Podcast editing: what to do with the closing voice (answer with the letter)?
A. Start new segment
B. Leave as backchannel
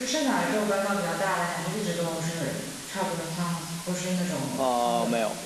A